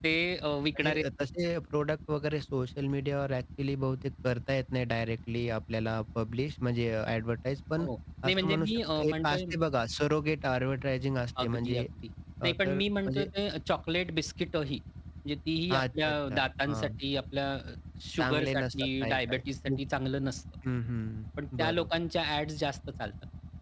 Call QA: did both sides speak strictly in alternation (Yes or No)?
No